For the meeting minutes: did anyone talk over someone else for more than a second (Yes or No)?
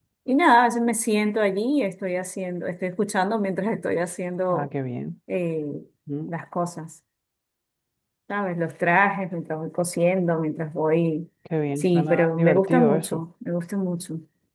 Yes